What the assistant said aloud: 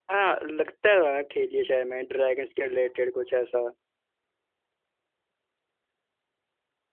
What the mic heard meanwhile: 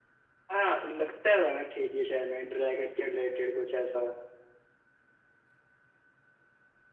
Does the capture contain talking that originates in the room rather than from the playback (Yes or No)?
No